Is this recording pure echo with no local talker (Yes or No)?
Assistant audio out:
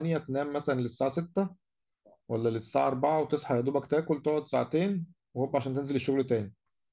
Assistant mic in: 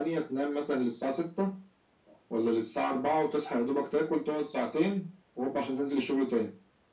Yes